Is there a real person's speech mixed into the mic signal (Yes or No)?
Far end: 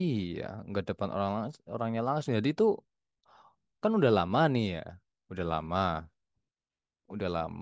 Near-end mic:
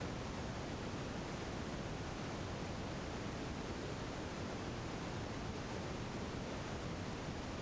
No